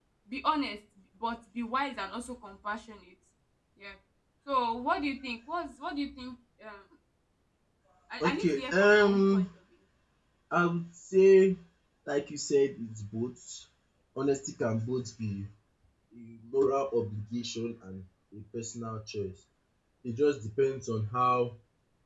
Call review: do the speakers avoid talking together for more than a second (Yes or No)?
No